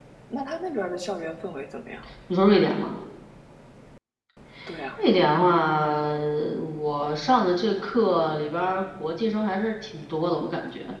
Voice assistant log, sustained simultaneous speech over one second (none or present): none